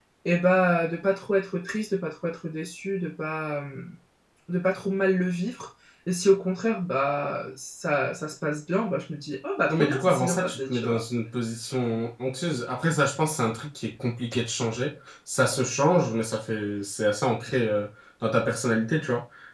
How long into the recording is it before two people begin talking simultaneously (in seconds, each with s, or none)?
9.7 s